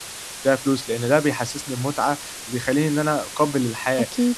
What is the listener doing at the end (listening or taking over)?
listening